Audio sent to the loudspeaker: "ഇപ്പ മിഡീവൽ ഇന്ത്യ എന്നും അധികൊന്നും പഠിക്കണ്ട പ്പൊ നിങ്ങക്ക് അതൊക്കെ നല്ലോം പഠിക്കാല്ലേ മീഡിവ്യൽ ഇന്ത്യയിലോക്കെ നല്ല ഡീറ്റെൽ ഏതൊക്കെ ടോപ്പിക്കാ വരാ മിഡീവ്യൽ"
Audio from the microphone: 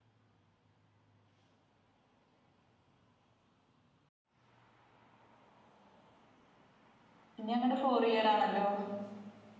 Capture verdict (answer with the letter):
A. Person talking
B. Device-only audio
A